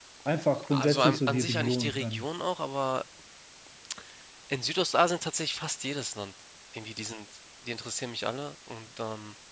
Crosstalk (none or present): present